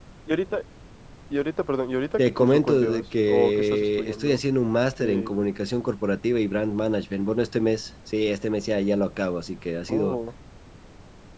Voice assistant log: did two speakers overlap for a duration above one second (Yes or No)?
Yes